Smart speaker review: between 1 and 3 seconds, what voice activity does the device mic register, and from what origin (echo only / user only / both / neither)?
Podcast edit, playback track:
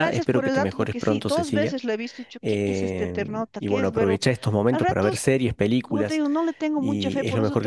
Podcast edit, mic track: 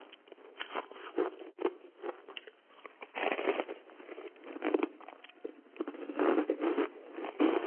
neither